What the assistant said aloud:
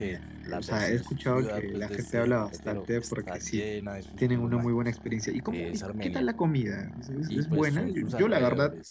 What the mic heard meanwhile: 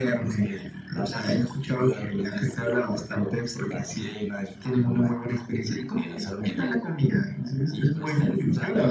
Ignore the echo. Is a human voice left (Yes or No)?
No